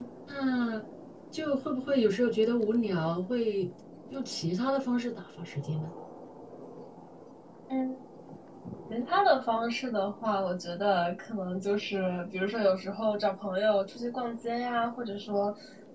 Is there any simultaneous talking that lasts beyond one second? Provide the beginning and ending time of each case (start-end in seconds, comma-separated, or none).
none